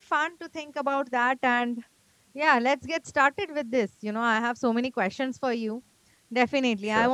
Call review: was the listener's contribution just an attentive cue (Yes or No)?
Yes